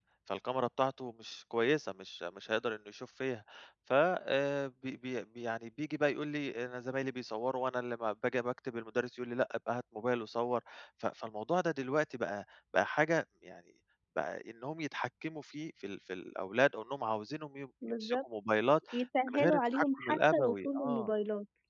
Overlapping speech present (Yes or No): Yes